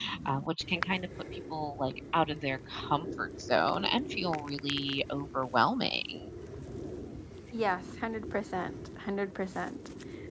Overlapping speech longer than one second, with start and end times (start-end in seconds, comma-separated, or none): none